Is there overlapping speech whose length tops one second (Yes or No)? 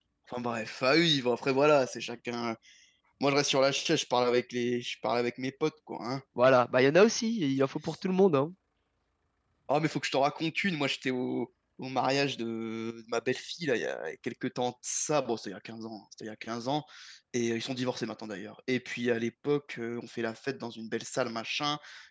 No